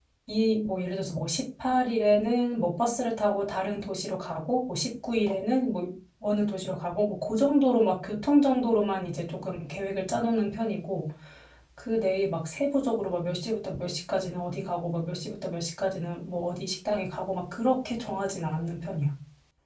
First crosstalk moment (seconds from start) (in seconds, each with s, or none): none